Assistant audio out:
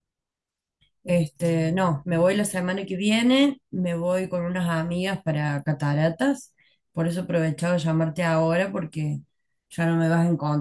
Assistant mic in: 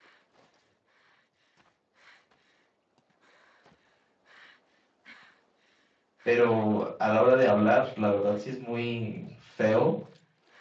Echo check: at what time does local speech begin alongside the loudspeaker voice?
6.2 s

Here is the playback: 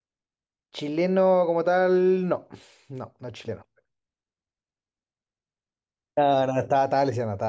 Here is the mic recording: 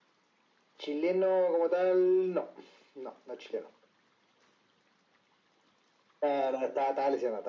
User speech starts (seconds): none

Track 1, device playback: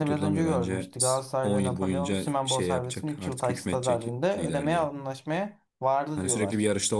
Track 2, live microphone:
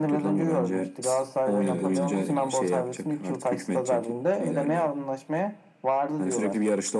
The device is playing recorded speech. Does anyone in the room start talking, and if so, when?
1.6 s

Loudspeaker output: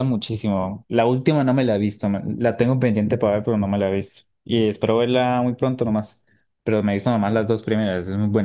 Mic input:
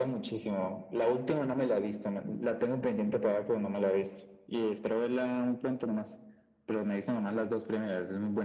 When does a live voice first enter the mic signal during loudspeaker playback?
none

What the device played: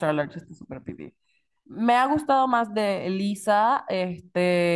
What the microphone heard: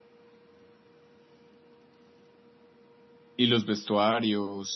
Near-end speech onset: 3.4 s

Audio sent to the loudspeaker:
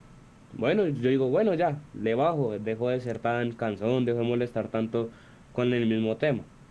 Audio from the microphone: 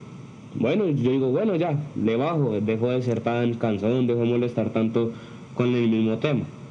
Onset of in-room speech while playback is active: none

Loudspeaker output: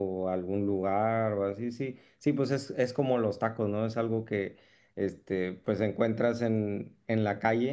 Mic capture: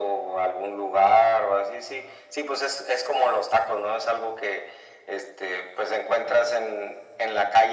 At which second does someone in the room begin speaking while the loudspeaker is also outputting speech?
none

